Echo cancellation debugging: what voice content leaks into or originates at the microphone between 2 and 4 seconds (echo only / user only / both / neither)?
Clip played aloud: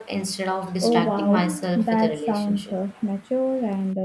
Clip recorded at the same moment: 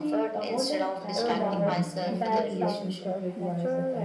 both